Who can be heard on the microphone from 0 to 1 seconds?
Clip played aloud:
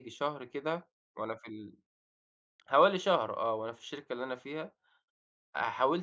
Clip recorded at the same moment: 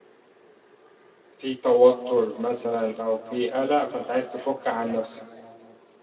neither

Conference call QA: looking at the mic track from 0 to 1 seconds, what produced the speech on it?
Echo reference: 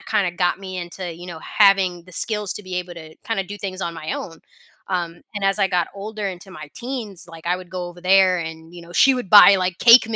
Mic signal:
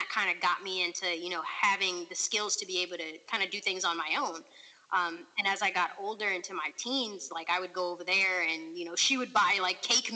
echo only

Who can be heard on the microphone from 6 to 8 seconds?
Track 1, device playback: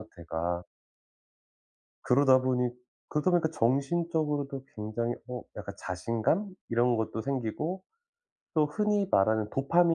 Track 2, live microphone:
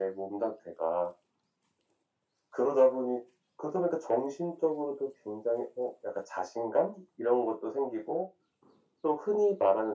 echo only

